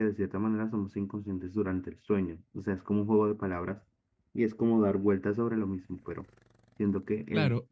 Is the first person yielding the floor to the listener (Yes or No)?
Yes